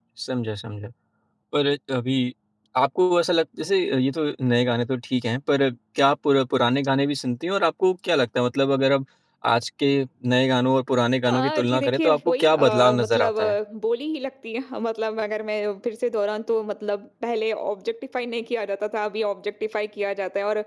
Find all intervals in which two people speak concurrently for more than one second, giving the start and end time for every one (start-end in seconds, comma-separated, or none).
11.3-13.6